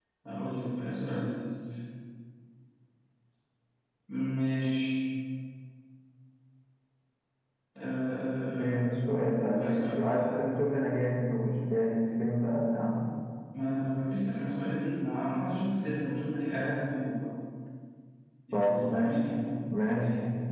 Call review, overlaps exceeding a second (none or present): present